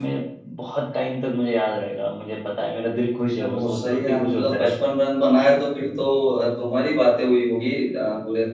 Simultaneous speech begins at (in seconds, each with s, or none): 3.4 s